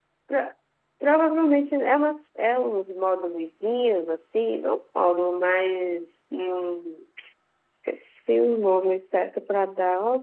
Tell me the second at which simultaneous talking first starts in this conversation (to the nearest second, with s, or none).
none